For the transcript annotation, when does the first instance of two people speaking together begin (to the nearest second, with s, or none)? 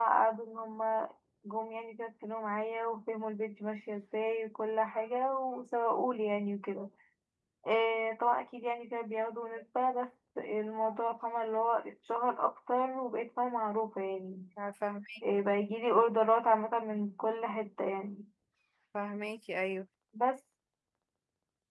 none